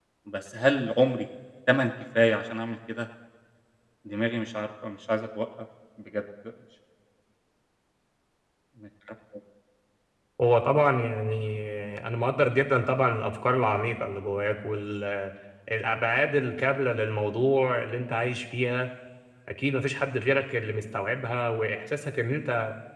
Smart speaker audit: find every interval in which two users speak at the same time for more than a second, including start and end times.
none

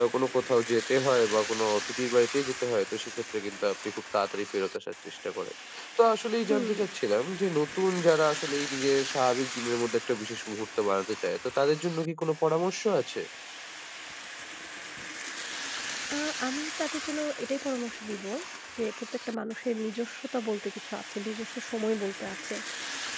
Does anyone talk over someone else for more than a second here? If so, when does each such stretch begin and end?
none

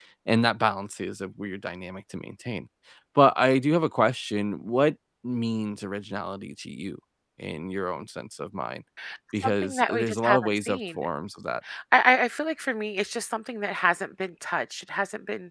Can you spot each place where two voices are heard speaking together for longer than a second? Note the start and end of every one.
9.4-10.8

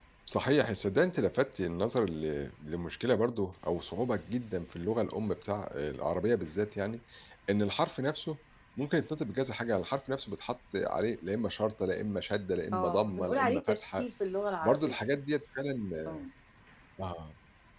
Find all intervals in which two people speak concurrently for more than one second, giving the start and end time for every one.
12.7-14.1

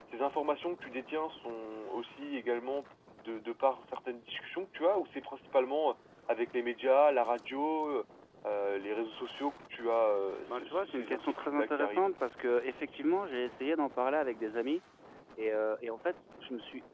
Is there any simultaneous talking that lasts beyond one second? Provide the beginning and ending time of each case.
10.5-12.1

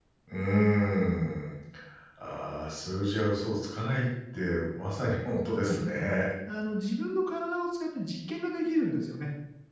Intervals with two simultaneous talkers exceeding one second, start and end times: none

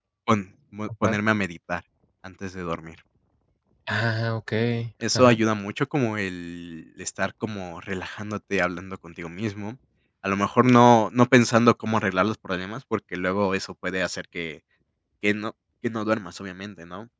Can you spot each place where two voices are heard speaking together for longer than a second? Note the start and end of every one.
none

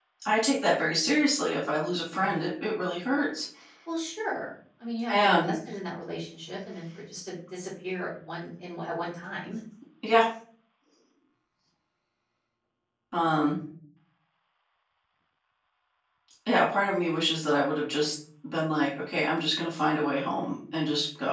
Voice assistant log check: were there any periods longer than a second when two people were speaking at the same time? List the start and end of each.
none

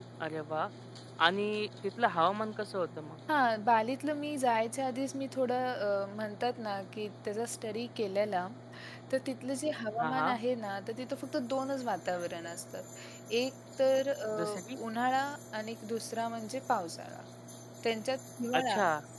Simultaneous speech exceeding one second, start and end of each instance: none

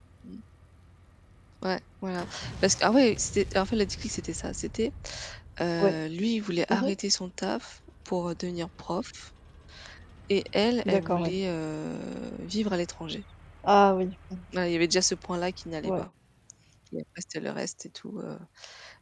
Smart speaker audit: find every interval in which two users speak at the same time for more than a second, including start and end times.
none

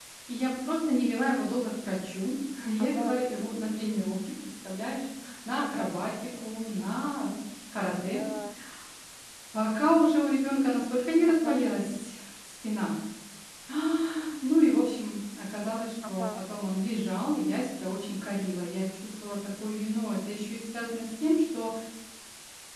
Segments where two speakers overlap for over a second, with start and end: none

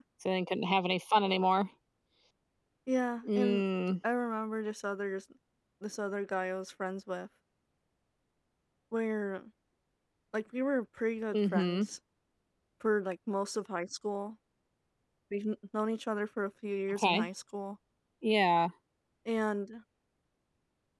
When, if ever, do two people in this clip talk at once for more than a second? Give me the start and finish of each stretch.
none

